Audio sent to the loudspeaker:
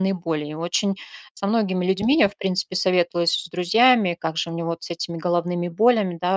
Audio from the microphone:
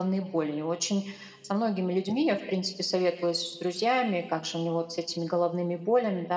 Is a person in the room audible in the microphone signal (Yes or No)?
No